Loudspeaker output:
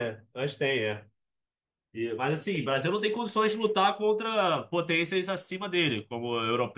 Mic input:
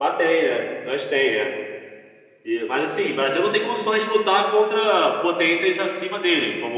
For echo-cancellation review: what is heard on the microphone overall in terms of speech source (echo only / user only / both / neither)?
echo only